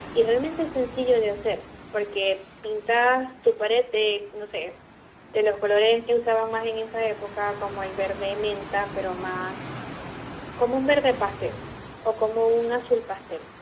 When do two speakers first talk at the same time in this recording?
none

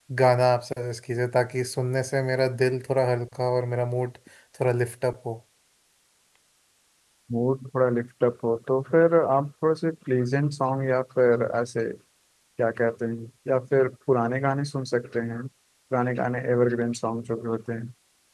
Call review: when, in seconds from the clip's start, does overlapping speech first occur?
none

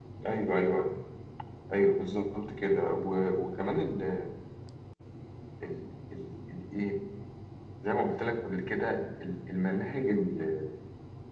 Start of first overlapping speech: none

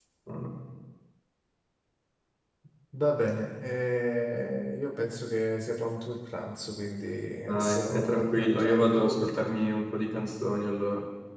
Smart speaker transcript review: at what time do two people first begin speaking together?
7.5 s

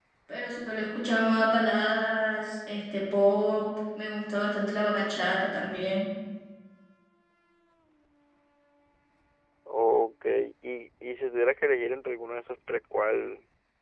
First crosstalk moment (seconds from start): none

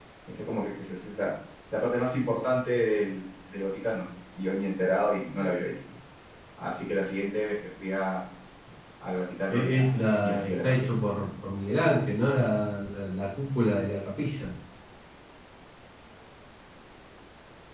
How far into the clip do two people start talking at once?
9.5 s

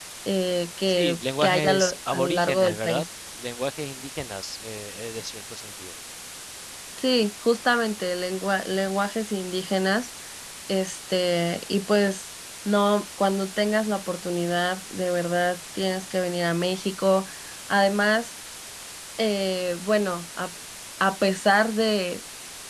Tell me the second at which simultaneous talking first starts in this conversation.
0.9 s

